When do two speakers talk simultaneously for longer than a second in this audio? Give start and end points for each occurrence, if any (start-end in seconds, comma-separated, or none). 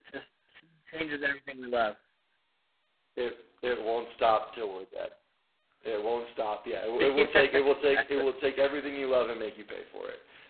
none